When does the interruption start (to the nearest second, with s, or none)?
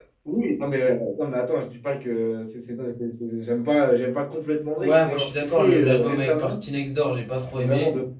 5 s